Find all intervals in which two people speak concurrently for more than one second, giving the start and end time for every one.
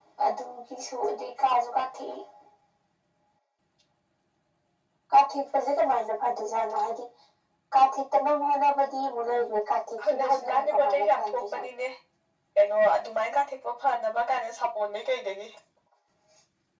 10.1-11.6

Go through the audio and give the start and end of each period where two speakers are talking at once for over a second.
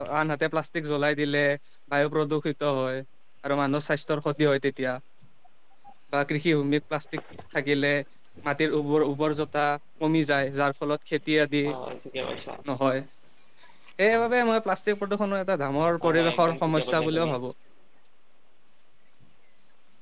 16.0-17.3

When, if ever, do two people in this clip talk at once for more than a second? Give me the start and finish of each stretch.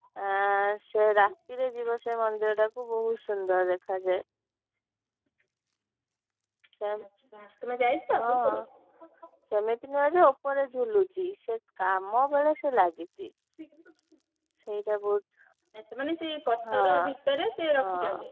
none

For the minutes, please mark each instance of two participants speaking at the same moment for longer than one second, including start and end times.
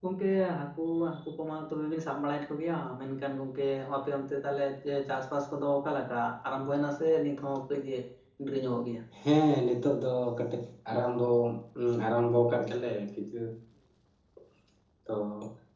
none

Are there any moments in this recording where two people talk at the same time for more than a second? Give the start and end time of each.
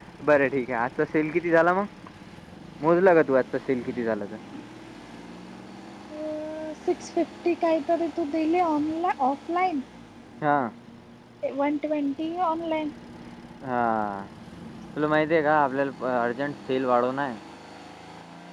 none

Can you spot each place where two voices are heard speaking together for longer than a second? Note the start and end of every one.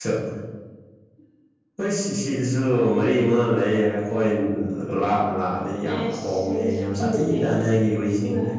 5.9-7.5

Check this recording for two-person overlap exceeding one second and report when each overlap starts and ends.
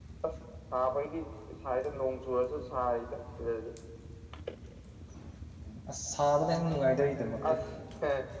none

